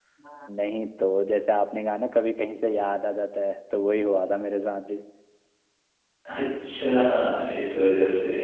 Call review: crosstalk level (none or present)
none